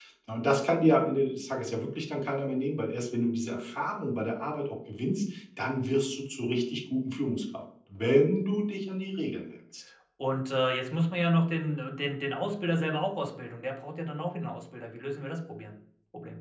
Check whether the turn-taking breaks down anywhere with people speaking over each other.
No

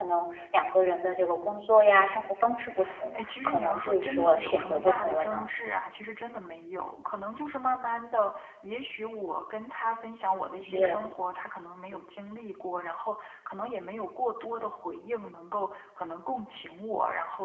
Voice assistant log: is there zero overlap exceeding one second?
No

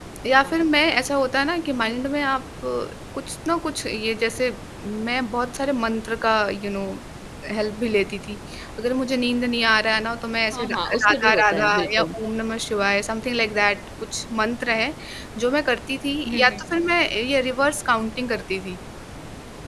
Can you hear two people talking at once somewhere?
Yes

